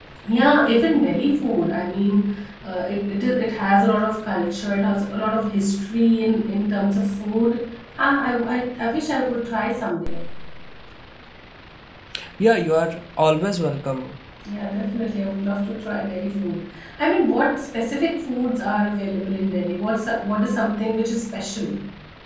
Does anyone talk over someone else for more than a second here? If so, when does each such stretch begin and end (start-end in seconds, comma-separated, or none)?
none